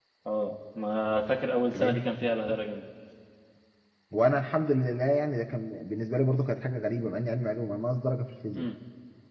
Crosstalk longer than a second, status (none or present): none